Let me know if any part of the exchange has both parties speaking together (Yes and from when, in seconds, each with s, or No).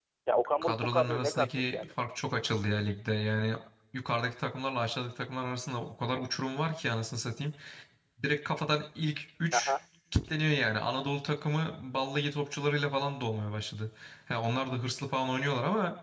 Yes, from 0.6 s